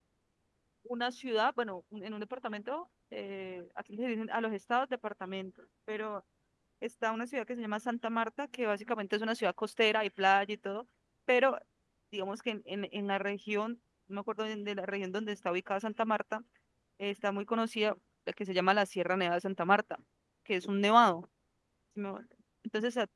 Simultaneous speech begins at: none

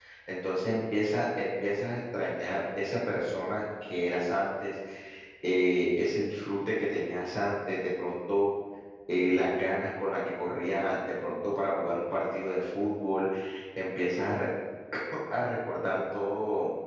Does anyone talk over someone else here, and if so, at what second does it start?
none

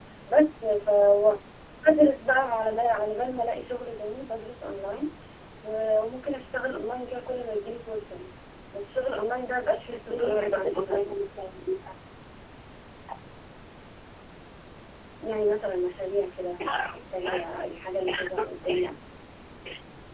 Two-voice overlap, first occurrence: 9.8 s

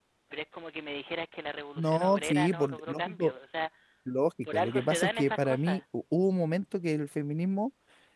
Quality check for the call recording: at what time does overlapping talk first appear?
1.8 s

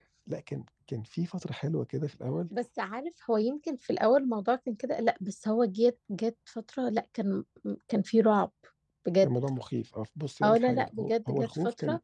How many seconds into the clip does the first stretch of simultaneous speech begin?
10.4 s

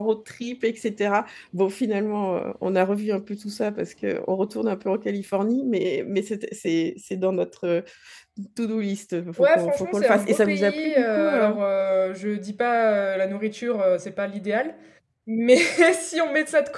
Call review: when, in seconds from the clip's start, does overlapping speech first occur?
9.4 s

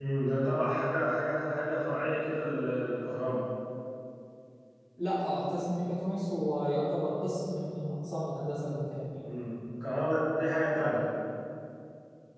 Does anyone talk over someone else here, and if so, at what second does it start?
none

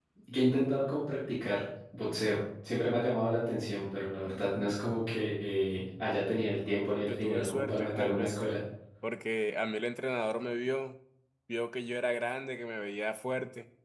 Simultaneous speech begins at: 7.1 s

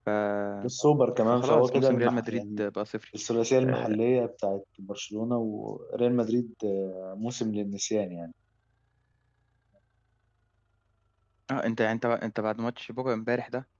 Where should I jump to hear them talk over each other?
1.2 s

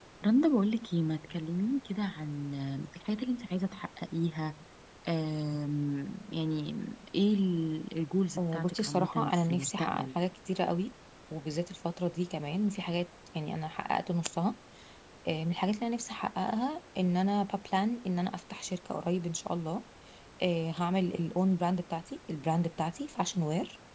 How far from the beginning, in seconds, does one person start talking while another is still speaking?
8.4 s

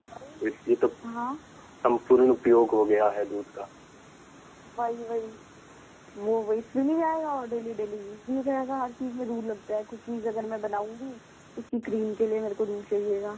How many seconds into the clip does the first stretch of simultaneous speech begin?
none

